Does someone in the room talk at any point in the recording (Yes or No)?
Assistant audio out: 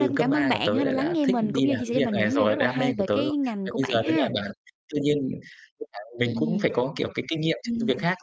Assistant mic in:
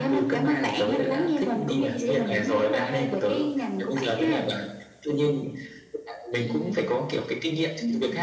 No